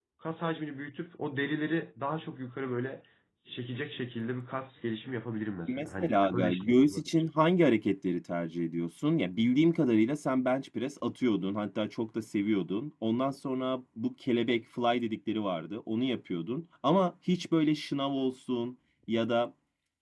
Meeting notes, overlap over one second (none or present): present